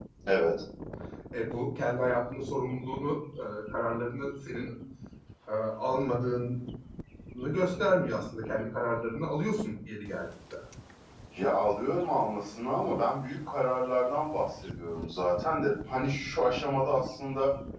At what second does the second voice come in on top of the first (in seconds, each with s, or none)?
none